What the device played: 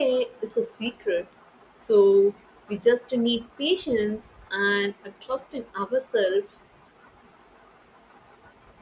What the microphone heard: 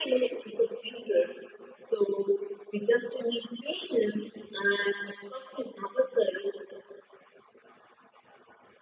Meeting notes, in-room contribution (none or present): none